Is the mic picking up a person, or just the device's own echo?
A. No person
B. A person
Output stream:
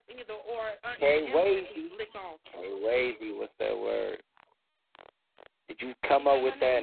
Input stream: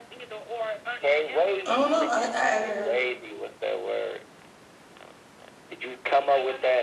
B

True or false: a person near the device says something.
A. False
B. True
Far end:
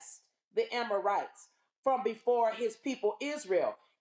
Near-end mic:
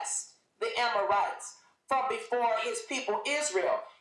A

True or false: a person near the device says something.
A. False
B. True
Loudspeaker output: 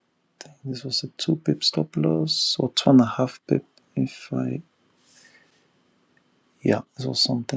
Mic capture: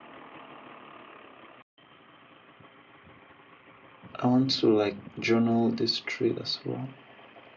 B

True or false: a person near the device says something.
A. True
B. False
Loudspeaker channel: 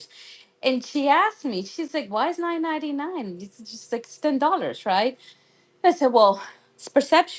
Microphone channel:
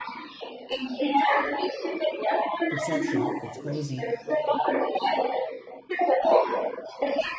A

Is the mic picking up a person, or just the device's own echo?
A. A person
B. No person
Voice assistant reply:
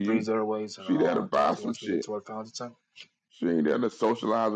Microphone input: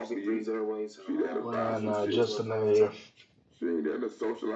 A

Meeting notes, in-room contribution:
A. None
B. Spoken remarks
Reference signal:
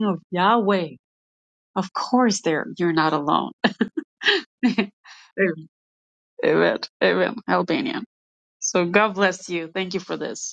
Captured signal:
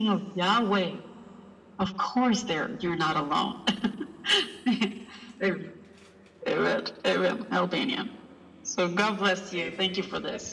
B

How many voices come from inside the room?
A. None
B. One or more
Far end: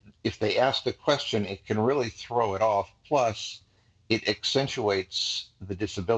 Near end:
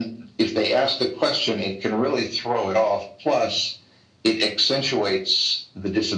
A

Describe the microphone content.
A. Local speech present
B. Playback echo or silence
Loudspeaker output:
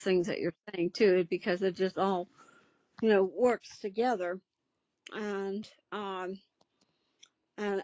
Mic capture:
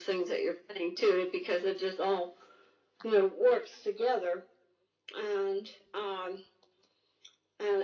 B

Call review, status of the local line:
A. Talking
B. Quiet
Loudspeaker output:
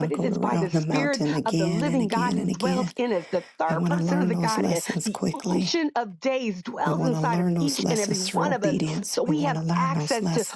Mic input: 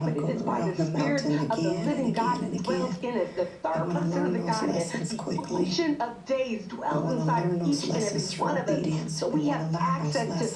B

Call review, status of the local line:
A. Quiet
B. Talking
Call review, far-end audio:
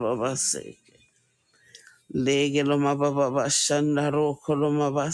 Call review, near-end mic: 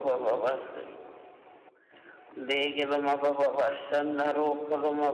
A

